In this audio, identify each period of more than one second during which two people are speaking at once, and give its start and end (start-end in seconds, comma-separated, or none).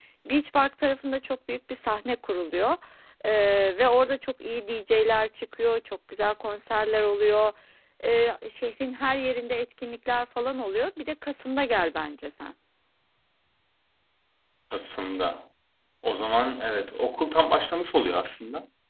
none